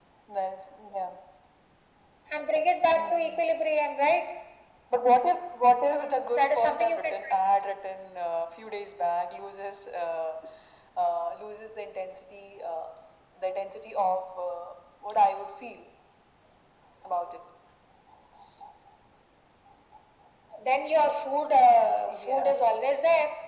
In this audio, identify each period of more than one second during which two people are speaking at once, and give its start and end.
5.9-7.3

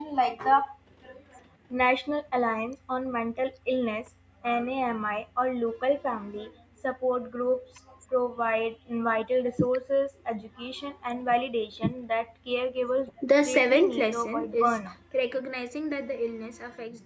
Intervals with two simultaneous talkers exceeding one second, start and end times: 13.4-14.8

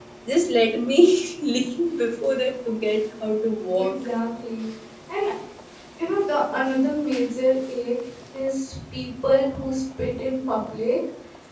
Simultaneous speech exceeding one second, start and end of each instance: none

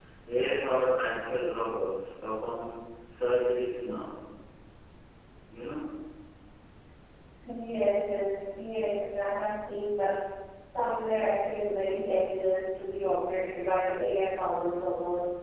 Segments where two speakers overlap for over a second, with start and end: none

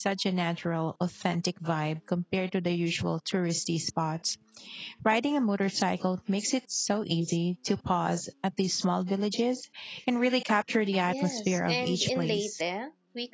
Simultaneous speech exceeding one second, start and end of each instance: 11.1-12.5

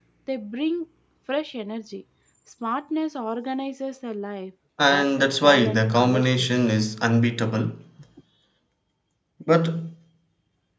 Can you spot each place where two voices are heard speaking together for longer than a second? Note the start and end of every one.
4.8-6.5

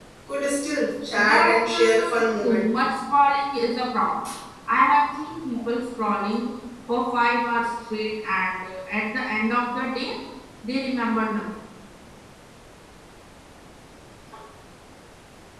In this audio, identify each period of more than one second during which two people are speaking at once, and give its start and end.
1.2-2.6

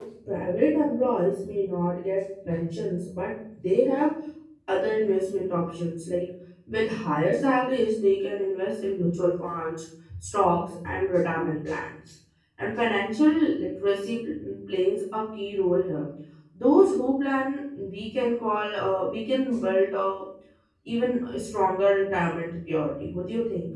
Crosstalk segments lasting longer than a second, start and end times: none

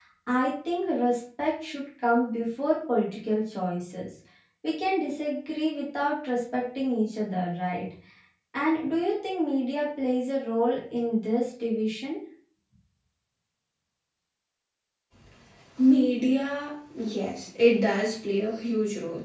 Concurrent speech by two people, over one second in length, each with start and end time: none

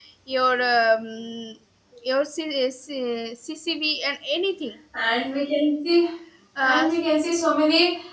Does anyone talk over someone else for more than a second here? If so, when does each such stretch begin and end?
none

